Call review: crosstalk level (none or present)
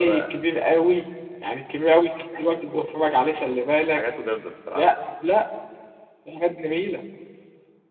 present